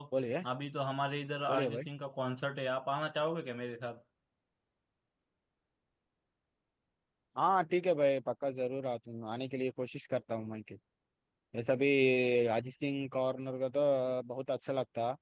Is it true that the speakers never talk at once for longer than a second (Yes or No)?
Yes